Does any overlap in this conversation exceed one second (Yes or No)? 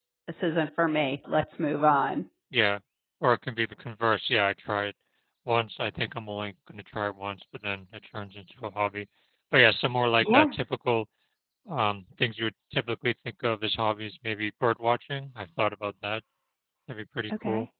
No